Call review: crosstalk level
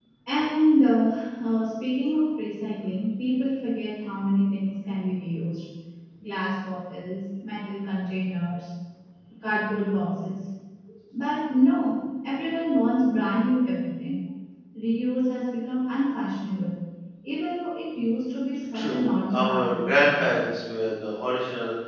present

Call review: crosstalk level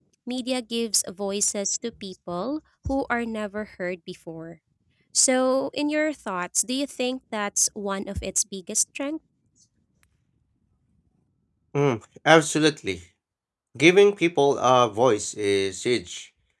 none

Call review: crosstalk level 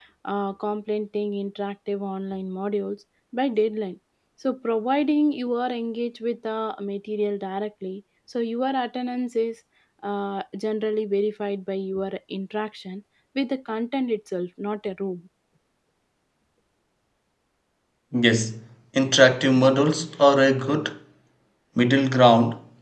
none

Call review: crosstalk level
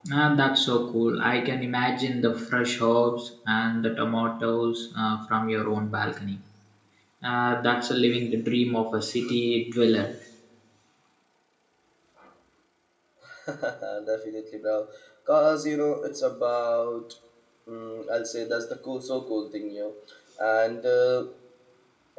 none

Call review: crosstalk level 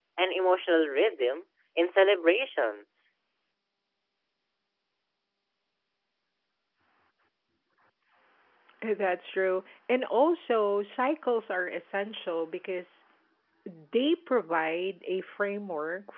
none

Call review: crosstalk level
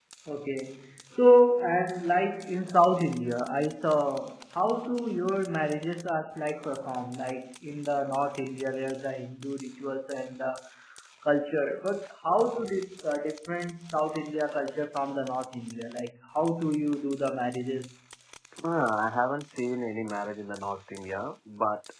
none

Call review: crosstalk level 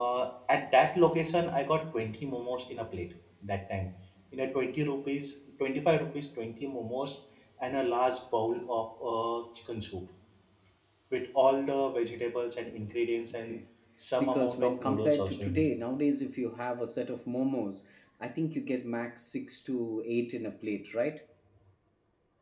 present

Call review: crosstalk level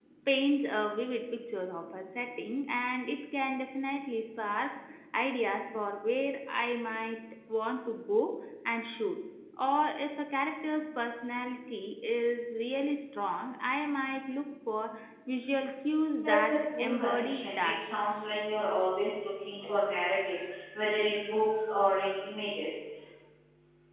present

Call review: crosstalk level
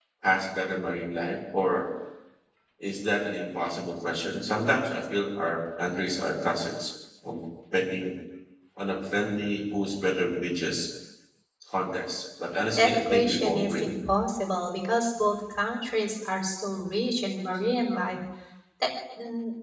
present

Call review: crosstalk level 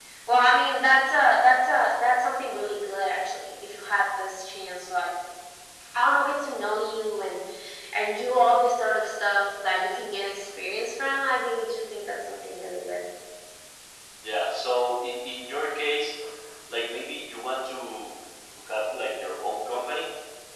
none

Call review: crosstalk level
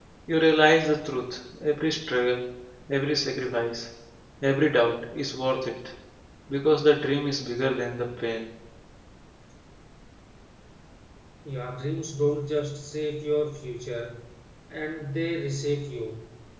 none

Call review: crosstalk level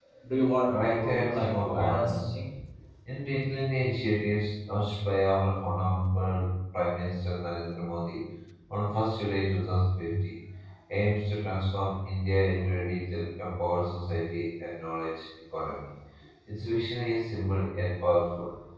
present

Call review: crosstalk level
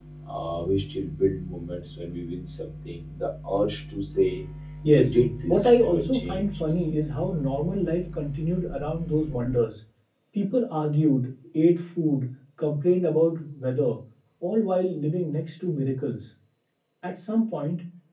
present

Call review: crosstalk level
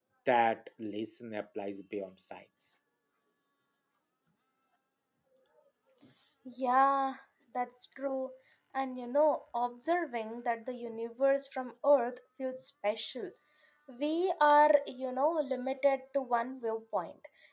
none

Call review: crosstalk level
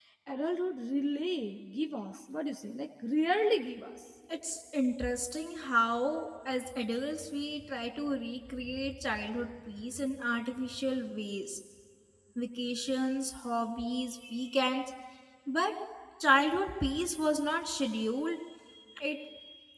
none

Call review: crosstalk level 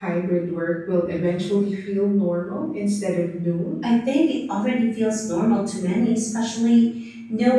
none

